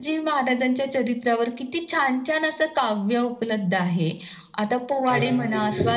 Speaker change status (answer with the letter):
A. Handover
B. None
B